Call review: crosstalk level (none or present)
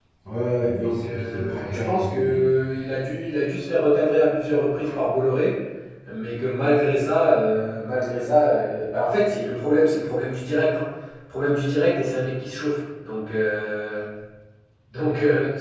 present